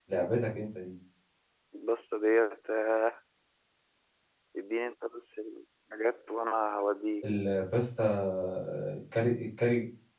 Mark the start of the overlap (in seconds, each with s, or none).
none